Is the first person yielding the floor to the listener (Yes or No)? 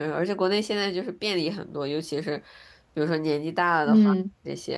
No